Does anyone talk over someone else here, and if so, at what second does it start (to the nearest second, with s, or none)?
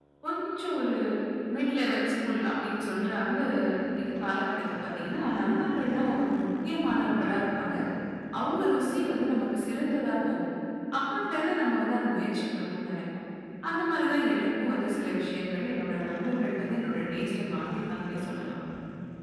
none